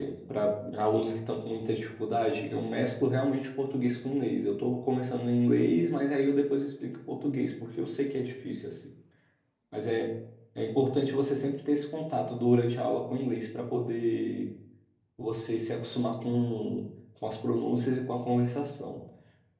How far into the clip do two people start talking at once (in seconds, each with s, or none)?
none